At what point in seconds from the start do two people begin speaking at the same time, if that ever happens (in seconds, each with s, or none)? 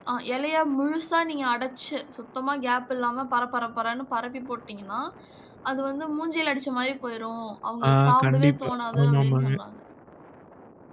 7.8 s